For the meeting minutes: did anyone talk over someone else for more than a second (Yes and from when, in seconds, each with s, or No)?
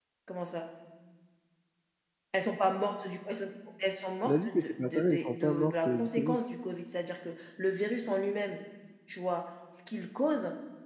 Yes, from 4.2 s